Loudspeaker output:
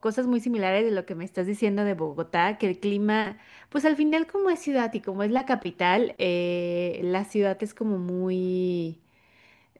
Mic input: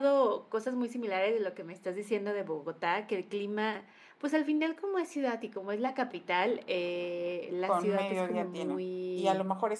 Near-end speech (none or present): present